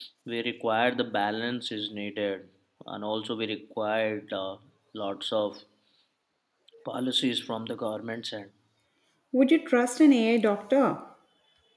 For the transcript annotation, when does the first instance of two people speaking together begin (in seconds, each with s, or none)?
none